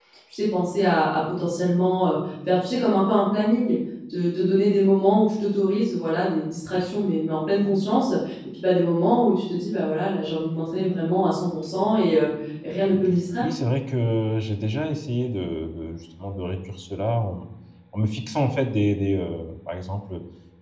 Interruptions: none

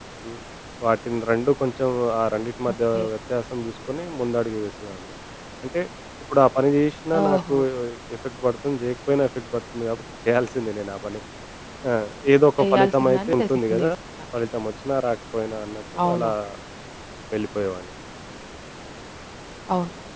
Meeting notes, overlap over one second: present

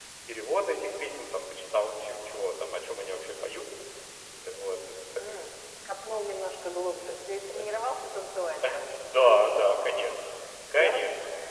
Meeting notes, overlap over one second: none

